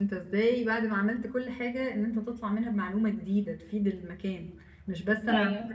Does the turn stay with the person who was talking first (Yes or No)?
Yes